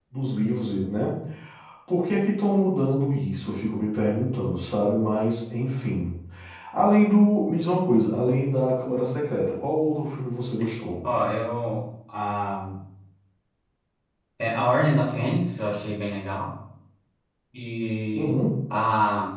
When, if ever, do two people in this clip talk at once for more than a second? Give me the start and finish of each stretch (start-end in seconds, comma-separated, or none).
none